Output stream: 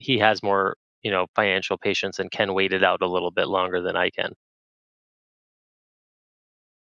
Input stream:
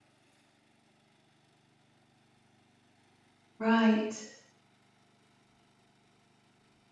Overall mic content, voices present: user only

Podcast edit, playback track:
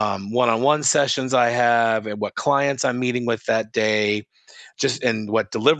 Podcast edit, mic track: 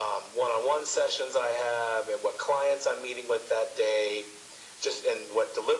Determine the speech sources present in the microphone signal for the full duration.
echo only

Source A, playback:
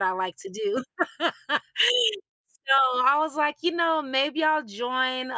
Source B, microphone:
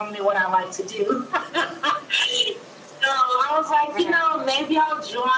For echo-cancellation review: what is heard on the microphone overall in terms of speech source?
both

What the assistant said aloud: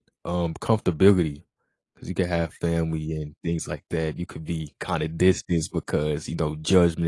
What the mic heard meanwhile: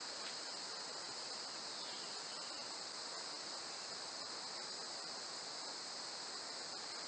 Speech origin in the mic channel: neither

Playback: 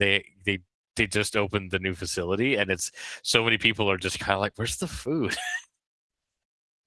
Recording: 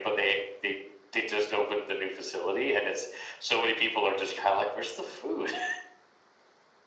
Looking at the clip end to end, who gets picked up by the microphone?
echo only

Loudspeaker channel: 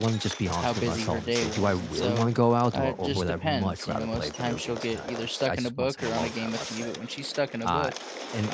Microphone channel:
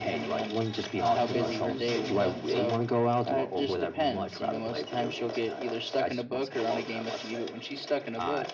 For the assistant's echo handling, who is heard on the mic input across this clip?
both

